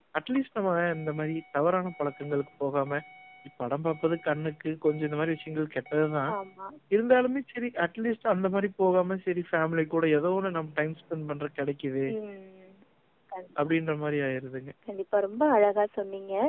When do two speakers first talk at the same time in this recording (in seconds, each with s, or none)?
none